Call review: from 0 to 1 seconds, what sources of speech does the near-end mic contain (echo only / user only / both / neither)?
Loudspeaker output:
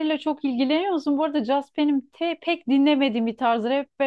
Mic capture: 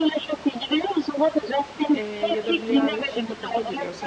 echo only